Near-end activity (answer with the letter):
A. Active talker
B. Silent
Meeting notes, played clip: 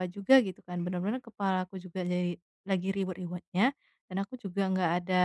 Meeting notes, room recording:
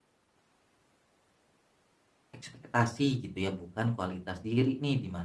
A